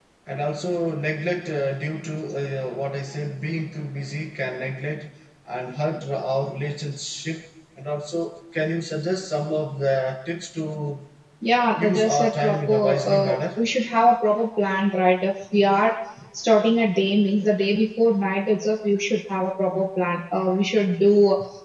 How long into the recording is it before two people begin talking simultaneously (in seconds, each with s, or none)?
11.8 s